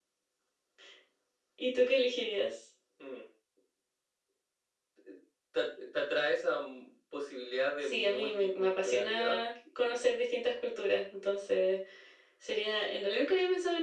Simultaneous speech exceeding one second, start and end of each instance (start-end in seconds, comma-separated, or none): 7.9-9.4